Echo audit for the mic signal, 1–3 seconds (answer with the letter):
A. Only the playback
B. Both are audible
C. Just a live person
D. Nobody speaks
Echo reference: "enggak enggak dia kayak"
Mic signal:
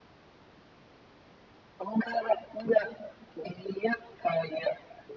A